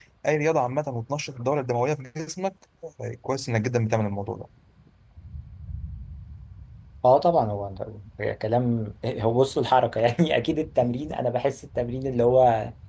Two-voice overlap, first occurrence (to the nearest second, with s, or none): none